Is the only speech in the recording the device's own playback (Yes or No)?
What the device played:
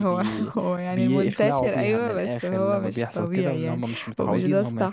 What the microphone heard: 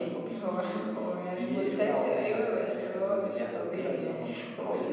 Yes